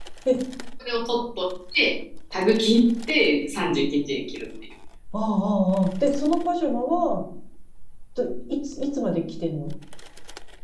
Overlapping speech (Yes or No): No